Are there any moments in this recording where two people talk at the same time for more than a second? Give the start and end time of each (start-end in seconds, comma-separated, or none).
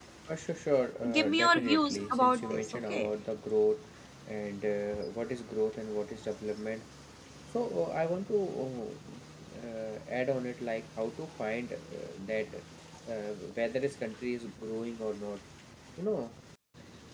1.1-3.1